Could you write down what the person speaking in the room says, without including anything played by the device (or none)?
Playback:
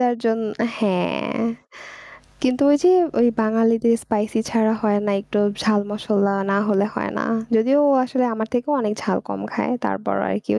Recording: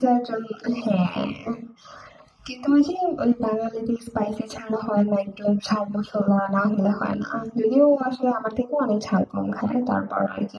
none